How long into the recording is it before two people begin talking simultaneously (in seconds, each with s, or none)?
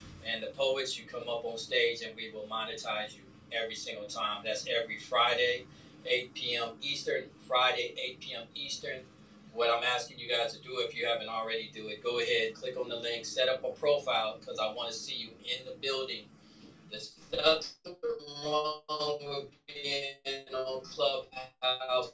none